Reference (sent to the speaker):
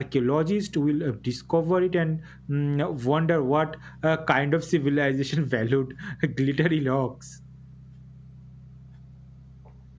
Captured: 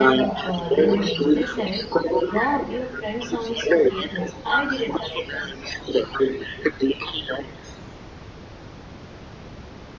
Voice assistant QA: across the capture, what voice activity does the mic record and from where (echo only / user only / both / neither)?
both